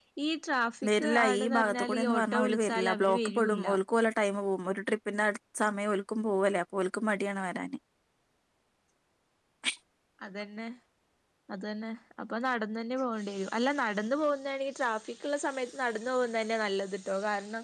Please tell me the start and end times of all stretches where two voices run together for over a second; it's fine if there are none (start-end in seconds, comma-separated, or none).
1.0-3.6